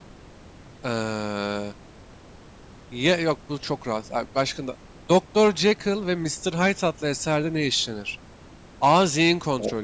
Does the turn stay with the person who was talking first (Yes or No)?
Yes